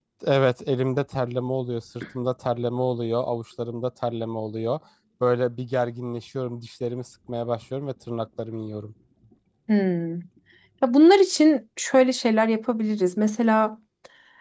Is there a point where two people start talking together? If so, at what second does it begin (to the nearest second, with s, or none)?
none